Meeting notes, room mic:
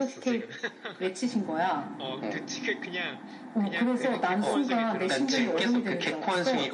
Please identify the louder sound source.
echo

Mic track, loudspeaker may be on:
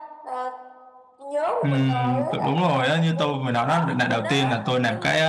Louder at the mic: user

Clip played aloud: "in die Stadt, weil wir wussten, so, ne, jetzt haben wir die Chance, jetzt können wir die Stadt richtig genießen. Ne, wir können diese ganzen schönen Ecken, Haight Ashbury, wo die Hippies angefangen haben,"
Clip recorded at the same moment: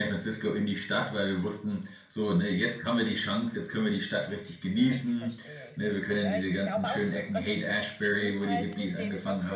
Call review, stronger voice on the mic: echo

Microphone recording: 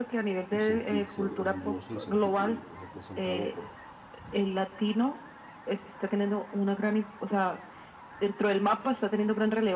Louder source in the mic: echo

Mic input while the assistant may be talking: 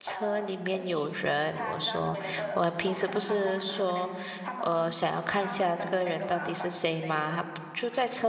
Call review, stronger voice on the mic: user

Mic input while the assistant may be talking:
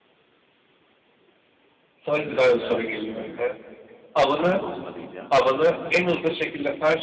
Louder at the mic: echo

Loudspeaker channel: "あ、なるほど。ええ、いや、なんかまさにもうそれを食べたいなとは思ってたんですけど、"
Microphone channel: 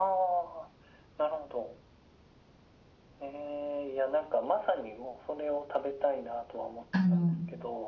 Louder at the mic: user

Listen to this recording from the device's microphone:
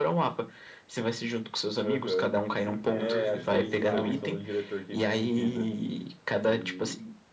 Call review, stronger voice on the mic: echo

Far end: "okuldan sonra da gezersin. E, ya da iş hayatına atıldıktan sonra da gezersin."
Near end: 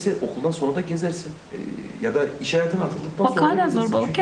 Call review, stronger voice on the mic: user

